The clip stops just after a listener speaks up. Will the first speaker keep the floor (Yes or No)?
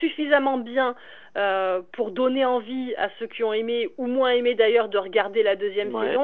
Yes